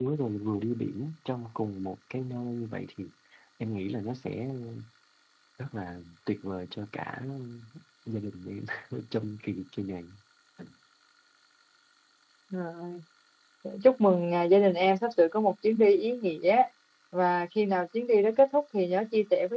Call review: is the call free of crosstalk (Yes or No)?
Yes